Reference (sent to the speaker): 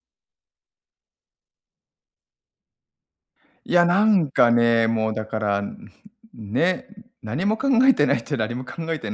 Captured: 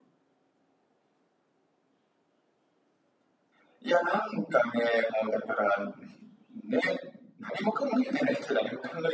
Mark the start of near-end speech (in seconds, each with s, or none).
none